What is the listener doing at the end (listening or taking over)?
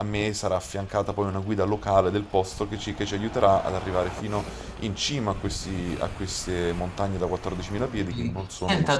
taking over